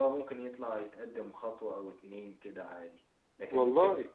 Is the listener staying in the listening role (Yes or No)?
Yes